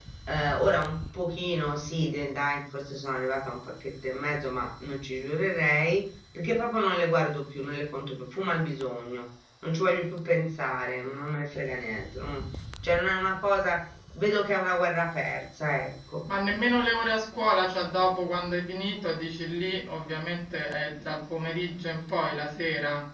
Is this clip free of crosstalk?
Yes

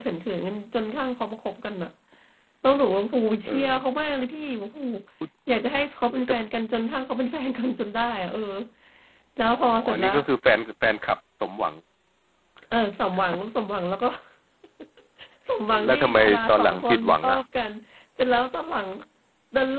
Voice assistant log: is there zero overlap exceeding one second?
No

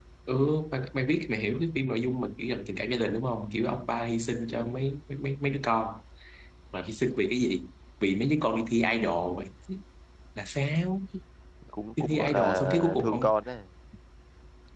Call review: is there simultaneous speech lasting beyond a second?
Yes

